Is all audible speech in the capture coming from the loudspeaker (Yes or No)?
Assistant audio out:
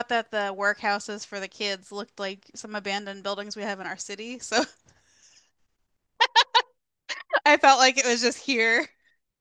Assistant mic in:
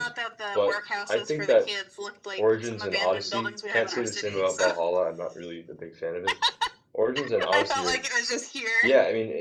No